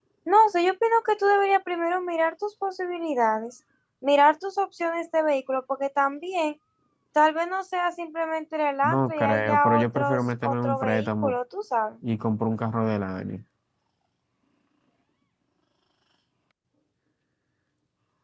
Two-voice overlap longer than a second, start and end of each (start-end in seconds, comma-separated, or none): 8.8-11.3